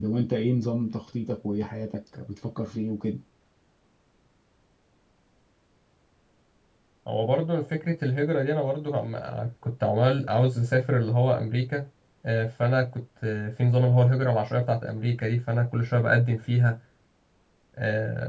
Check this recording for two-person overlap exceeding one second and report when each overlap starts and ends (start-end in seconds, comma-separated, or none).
none